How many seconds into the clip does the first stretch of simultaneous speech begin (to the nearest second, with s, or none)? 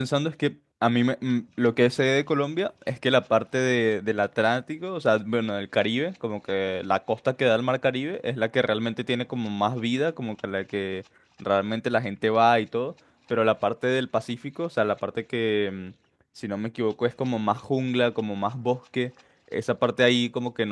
none